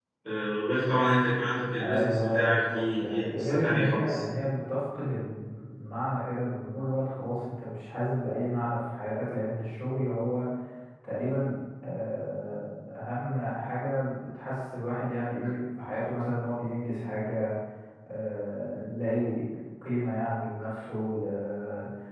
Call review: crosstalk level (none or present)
present